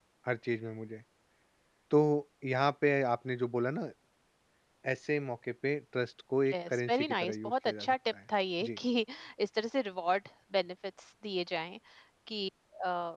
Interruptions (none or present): present